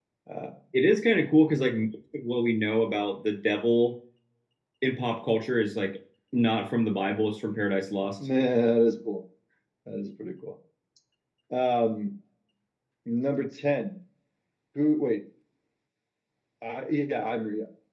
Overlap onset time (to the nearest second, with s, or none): none